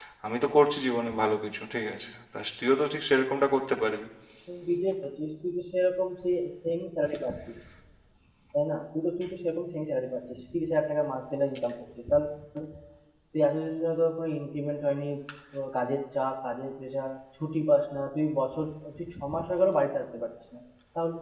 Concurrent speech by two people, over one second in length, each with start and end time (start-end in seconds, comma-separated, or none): none